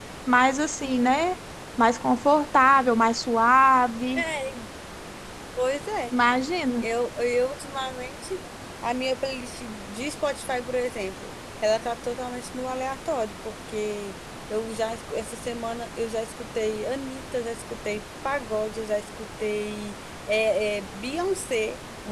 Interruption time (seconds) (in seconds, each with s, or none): none